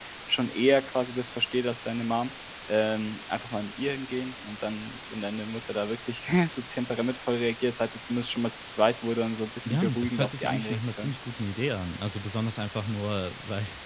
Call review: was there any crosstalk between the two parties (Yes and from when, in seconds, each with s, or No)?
Yes, from 9.7 s